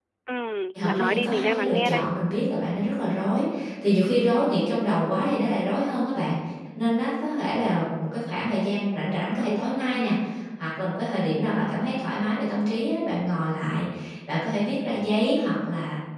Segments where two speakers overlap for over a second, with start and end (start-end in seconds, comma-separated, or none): 0.8-2.0